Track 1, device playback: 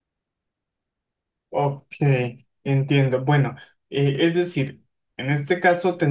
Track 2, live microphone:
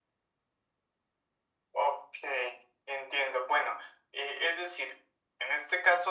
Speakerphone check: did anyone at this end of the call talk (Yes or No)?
No